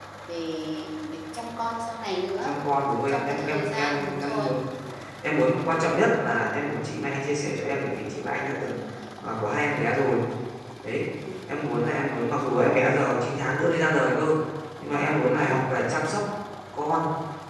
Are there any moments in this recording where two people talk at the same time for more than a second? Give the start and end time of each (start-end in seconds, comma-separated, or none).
3.1-4.5